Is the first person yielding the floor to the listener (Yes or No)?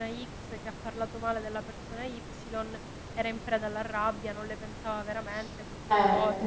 Yes